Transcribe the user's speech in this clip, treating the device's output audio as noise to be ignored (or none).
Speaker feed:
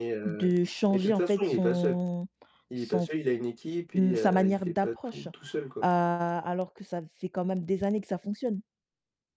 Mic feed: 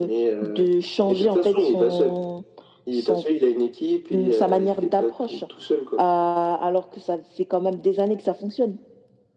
none